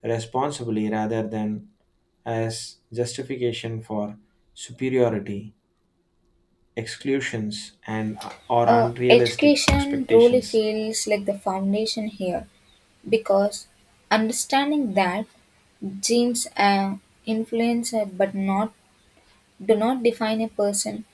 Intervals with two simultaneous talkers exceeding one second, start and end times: 8.7-10.6

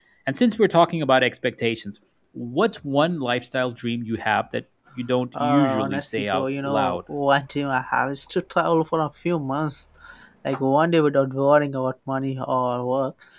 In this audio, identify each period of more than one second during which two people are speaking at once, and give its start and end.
5.4-7.0

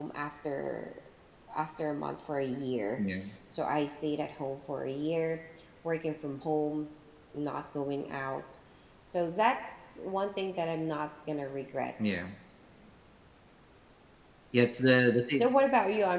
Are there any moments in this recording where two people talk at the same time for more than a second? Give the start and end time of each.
none

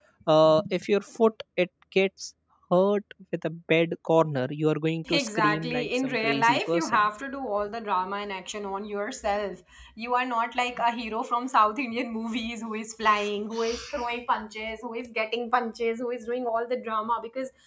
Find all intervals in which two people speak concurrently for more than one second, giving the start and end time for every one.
5.1-7.1

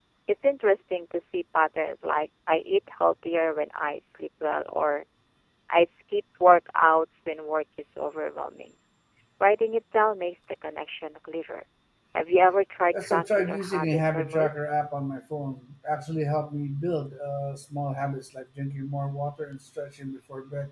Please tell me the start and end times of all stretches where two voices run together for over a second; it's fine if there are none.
12.9-14.5

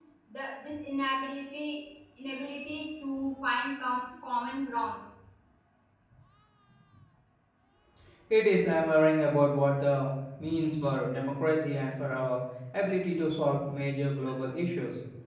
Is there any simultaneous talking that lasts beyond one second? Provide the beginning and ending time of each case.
none

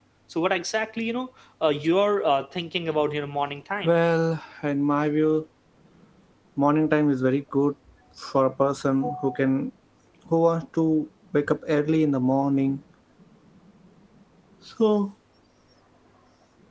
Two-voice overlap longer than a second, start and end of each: none

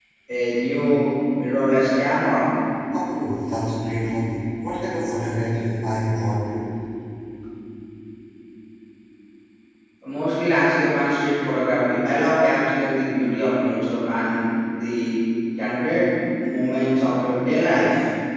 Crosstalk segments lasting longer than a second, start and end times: none

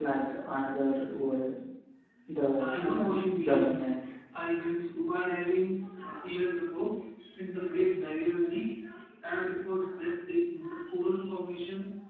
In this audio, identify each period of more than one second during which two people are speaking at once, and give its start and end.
2.6-3.8

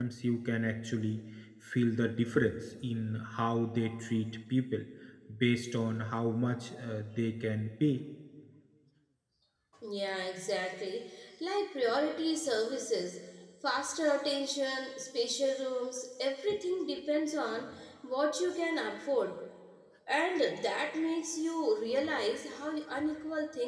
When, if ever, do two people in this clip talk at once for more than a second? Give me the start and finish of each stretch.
none

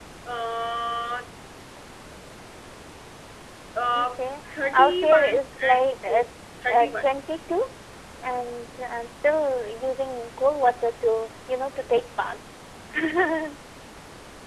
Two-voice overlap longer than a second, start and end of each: 4.5-6.2

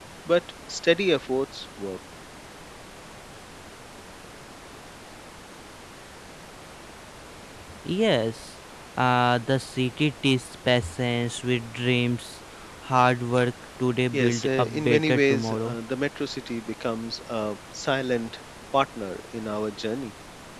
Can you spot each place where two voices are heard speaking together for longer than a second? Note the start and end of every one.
14.1-15.8

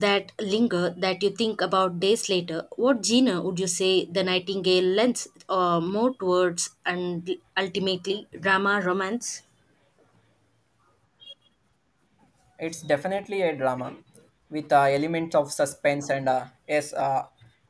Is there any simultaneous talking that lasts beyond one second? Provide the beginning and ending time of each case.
none

